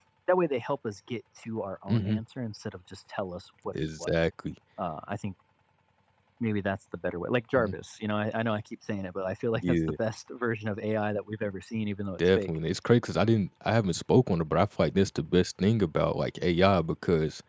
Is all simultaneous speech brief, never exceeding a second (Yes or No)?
Yes